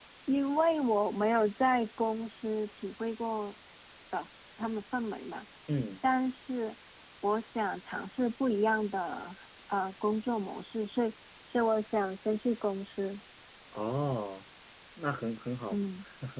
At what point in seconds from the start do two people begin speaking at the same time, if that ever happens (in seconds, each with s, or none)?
none